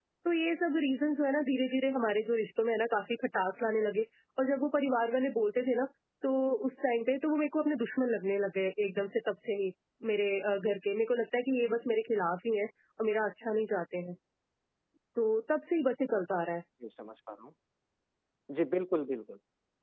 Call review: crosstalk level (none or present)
none